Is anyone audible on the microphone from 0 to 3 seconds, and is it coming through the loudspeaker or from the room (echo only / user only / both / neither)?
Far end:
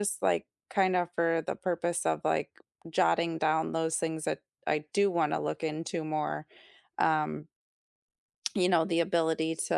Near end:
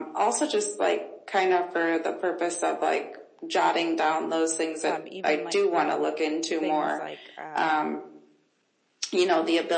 echo only